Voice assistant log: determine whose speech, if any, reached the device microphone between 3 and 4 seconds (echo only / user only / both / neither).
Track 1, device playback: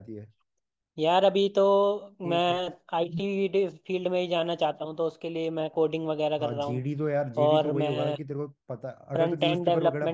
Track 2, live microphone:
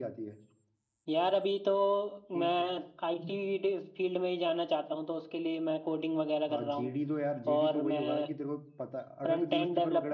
echo only